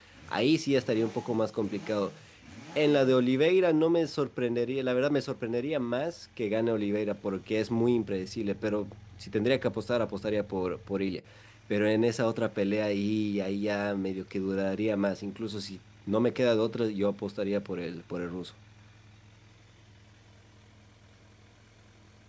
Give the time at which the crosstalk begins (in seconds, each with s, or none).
none